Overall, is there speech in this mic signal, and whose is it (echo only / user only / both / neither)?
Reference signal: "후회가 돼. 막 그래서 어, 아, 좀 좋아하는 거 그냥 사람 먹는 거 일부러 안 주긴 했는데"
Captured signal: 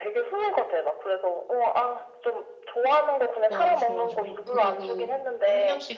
both